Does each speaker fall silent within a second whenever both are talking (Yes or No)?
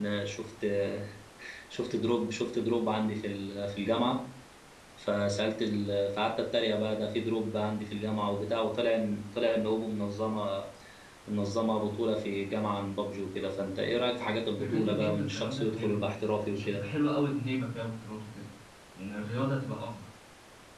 No